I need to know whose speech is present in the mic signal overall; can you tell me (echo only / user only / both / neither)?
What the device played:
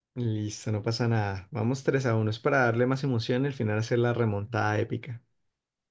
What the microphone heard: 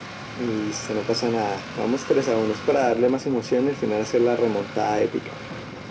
echo only